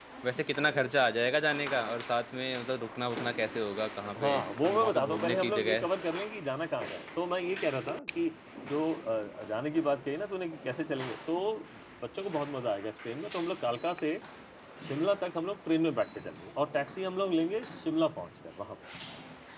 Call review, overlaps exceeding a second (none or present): present